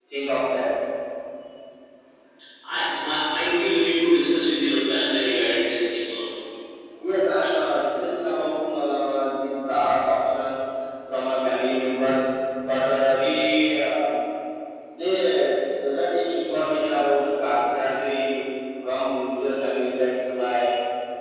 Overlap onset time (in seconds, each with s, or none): none